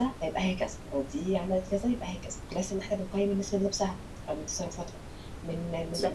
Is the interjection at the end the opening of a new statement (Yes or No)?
No